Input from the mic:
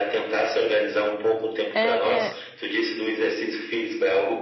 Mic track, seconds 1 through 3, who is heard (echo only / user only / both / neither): both